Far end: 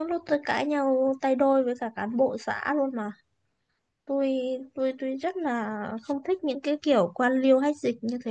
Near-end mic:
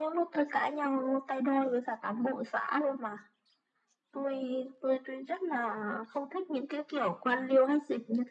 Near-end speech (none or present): none